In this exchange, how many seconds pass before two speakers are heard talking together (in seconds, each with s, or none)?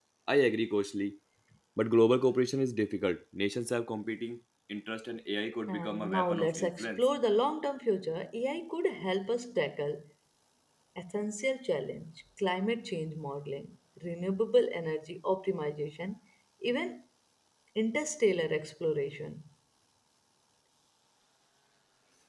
5.7 s